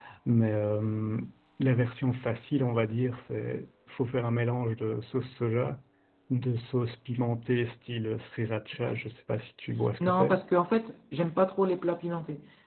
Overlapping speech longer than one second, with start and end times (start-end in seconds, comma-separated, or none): none